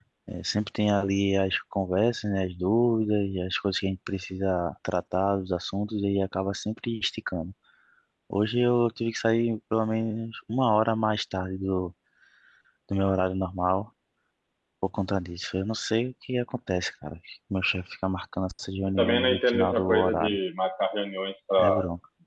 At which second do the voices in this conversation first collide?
19 s

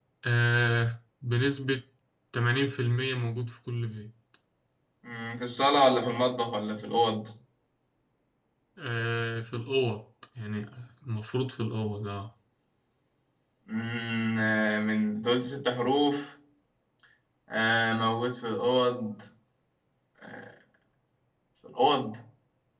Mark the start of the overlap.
none

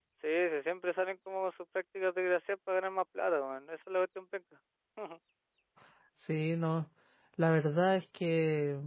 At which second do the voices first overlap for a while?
none

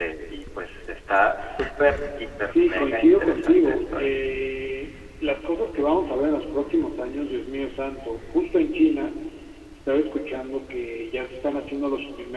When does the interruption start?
2 s

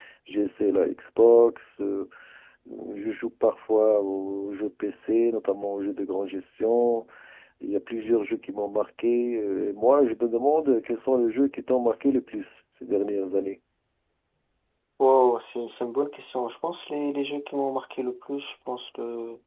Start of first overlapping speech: none

